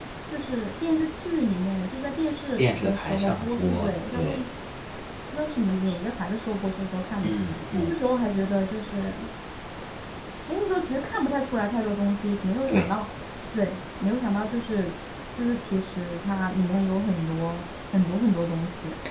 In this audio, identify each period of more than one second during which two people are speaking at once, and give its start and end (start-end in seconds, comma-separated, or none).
2.6-4.3